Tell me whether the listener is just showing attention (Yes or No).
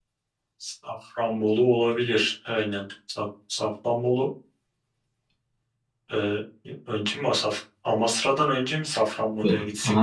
No